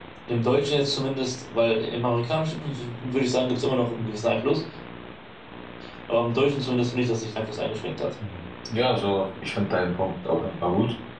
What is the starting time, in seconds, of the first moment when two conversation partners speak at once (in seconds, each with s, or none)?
none